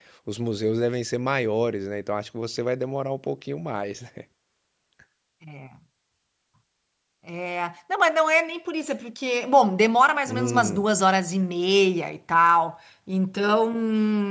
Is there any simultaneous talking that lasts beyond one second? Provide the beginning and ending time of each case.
none

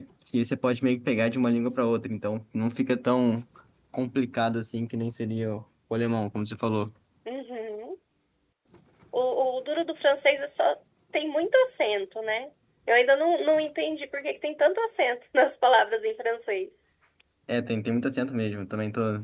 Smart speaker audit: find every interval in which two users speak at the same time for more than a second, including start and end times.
none

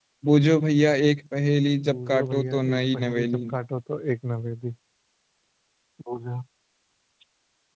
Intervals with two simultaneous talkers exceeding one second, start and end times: 1.9-3.4

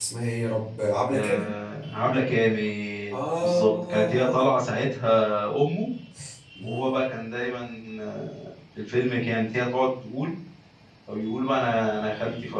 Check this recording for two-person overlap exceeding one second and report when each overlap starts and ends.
3.1-4.5

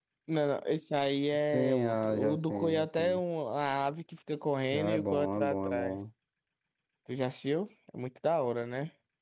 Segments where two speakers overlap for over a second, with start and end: 1.4-3.2, 4.7-6.0

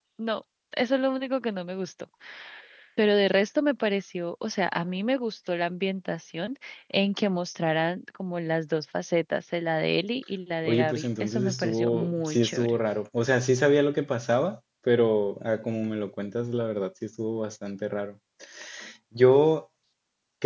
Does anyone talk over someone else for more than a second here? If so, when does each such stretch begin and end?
10.7-12.8

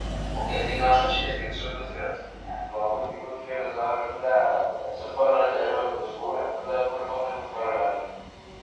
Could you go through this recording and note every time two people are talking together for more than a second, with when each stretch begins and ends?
none

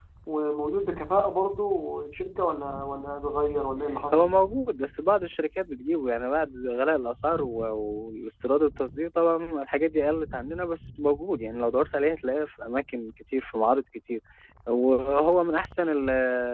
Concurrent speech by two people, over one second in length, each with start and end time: none

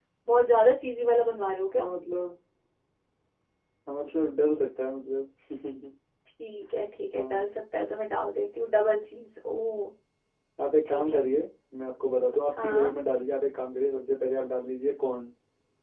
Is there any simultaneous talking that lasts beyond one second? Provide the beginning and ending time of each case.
none

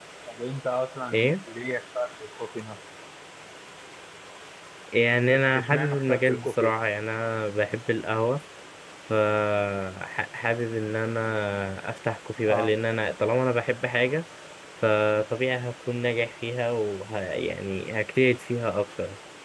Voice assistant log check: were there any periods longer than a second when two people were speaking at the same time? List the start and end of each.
5.2-6.7

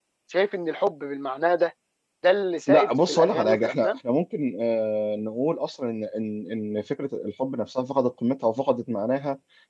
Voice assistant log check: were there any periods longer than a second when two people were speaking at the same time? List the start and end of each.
2.7-4.0

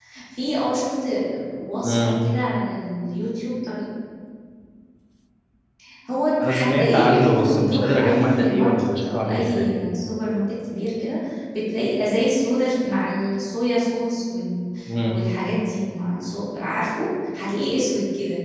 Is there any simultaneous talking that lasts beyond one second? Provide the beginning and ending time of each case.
6.4-9.8

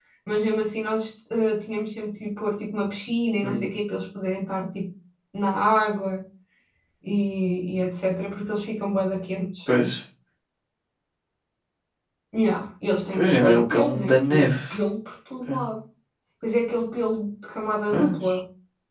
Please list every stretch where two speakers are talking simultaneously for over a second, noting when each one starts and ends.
13.1-14.5

